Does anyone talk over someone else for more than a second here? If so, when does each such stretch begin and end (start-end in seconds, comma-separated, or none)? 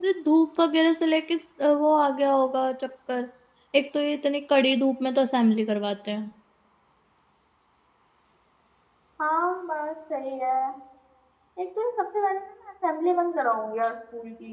none